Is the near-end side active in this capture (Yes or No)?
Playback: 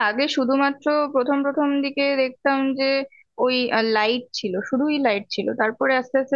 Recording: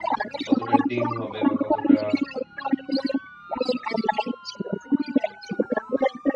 Yes